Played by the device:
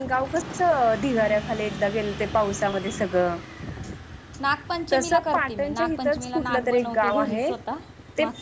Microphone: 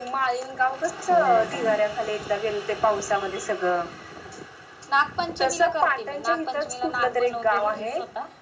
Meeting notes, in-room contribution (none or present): present